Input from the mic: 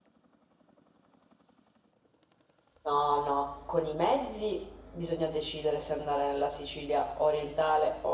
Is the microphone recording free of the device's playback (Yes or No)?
Yes